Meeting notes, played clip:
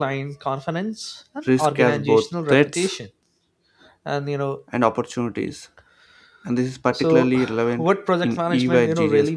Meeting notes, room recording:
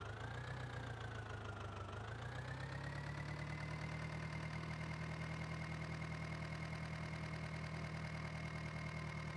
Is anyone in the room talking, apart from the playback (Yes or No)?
No